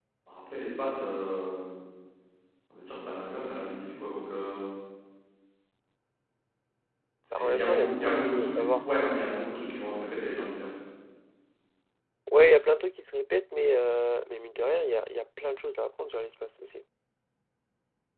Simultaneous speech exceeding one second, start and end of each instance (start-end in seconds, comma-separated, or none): 7.3-8.8